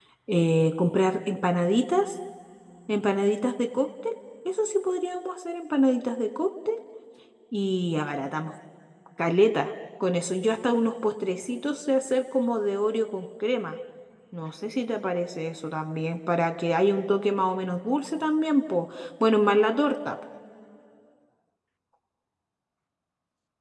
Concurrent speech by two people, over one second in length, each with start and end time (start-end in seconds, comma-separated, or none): none